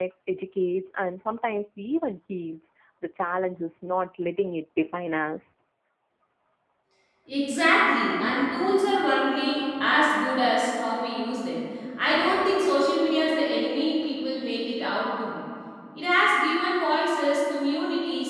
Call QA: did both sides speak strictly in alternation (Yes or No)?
Yes